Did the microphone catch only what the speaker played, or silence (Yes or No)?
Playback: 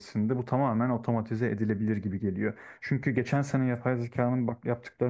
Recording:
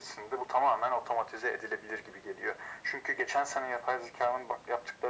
Yes